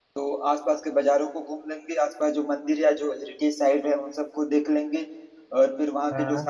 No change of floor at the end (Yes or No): Yes